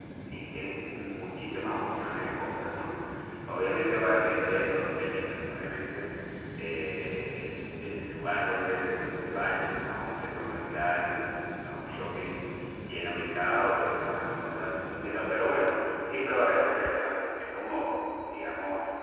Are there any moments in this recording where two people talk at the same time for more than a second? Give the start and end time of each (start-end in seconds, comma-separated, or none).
none